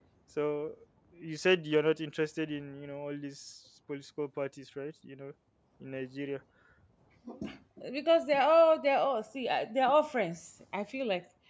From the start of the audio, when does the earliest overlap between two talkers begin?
none

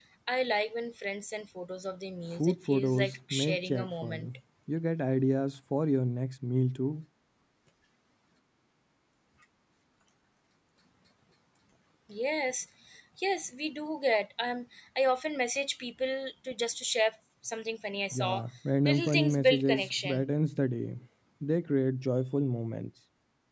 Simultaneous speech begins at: 2.4 s

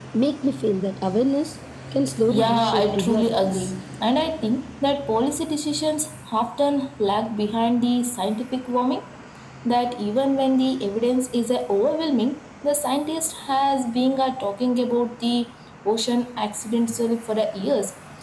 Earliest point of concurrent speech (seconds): 2.3 s

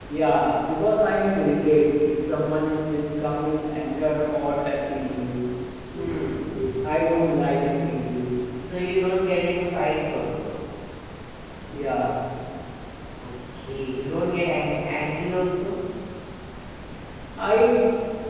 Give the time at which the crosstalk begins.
none

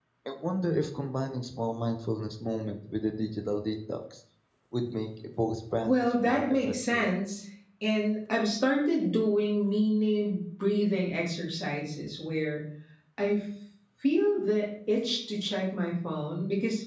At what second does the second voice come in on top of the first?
5.8 s

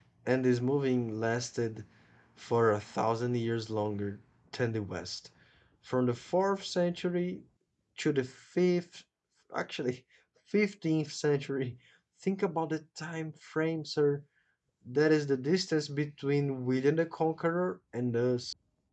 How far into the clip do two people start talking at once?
none

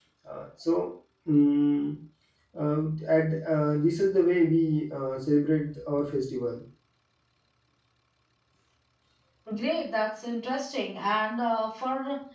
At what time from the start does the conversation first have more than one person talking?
none

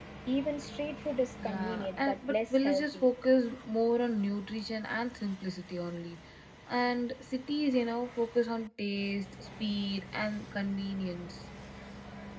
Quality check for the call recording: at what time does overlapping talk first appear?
1.4 s

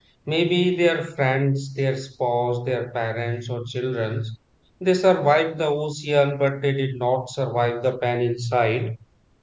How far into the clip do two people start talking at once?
none

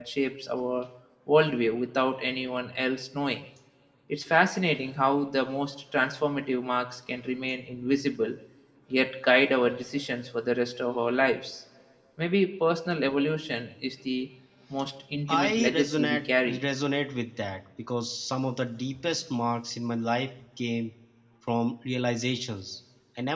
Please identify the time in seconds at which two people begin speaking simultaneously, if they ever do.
15.3 s

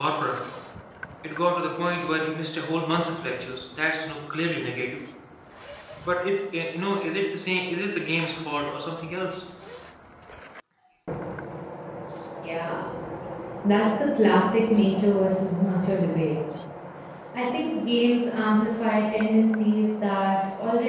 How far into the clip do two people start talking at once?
none

